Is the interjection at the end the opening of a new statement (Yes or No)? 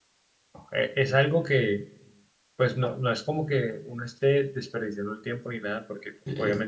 No